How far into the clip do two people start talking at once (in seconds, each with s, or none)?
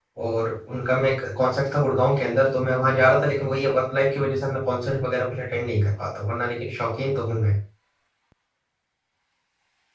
none